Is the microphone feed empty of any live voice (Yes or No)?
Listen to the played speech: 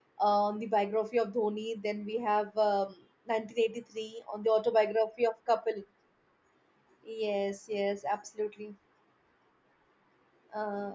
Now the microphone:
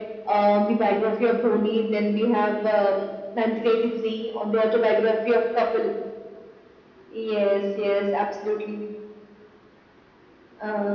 Yes